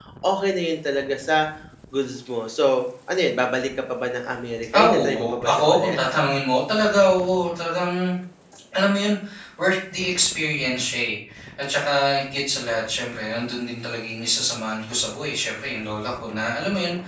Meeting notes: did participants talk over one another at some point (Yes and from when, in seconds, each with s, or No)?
Yes, from 4.7 s